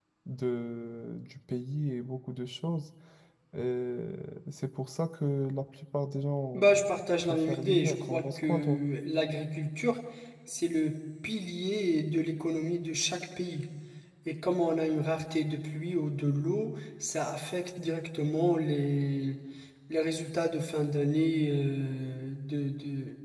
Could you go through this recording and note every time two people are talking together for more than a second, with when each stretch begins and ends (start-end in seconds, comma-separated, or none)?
6.5-8.8